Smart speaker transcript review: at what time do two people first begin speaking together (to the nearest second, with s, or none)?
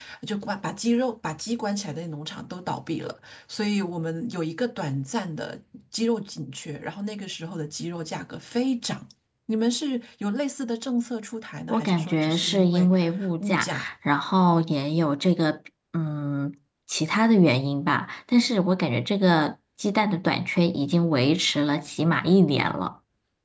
12 s